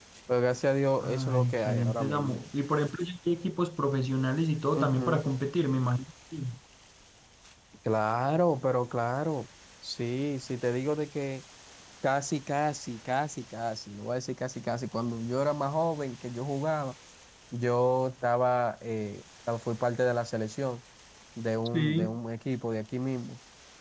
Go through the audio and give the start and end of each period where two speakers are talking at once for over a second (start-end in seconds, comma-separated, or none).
1.0-2.4